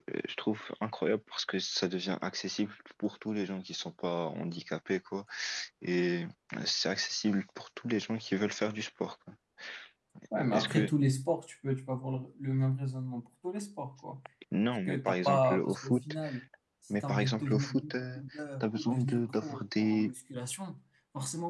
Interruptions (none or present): present